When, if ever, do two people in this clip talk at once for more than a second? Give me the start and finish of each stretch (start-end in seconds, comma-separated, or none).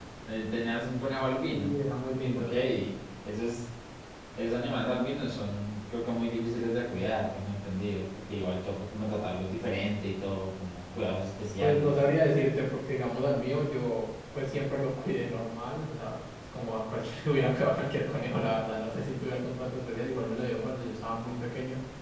none